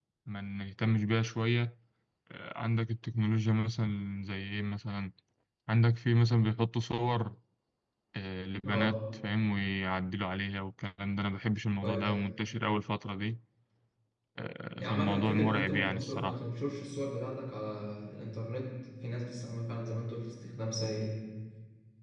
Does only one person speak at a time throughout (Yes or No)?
No